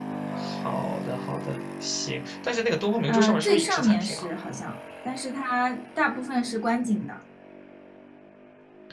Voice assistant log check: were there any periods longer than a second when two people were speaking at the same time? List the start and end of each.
3.1-4.3

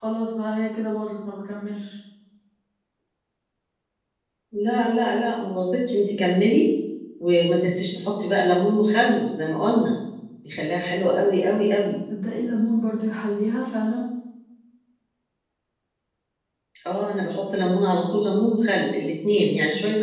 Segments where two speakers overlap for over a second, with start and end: none

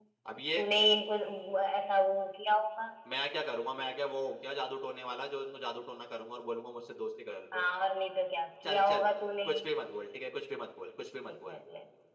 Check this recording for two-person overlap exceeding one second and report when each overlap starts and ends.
none

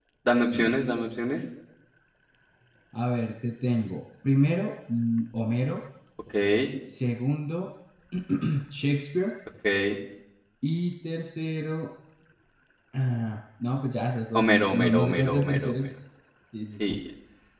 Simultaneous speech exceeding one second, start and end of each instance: 14.3-15.8

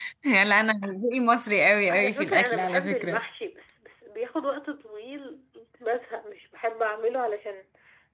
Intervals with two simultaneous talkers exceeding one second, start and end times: 1.9-3.2

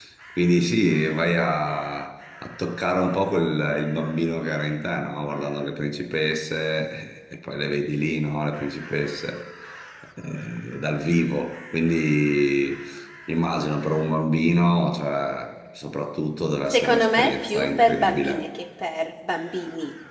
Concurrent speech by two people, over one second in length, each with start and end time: 16.7-18.4

